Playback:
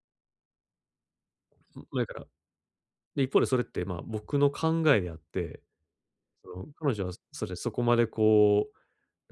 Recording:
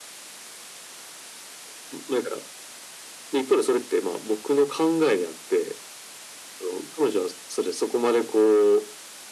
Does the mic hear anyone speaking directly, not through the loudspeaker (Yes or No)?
No